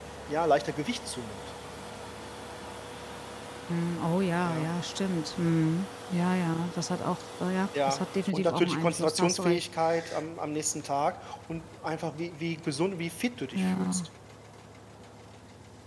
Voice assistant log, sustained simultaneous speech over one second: present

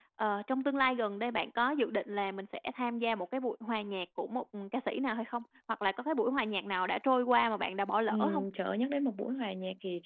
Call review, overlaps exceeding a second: none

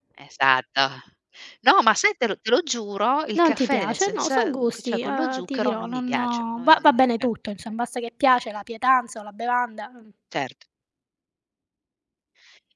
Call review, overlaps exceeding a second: present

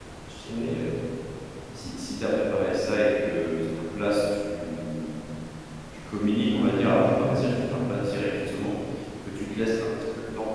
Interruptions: present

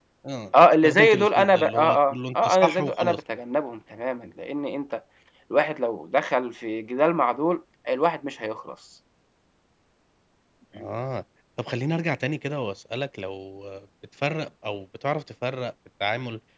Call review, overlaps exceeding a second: present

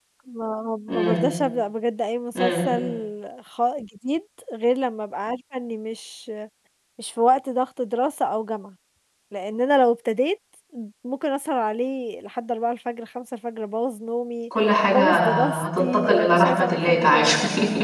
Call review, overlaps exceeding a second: present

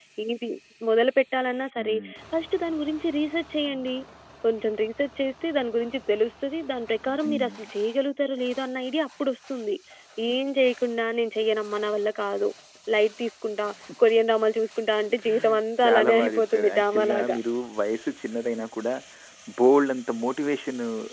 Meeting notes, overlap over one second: present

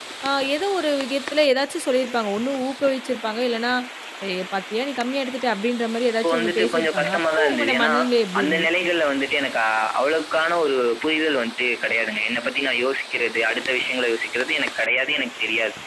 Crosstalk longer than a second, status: present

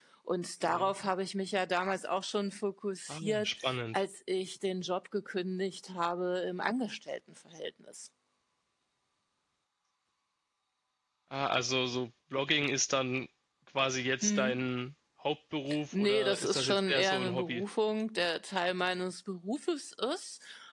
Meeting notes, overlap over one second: present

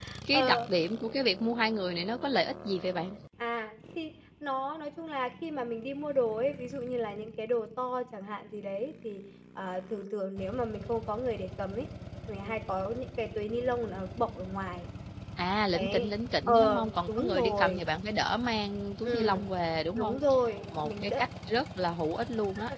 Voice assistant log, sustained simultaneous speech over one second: present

